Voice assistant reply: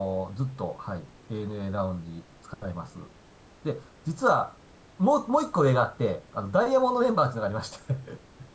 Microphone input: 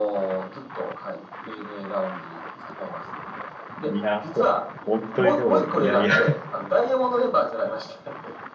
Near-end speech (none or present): present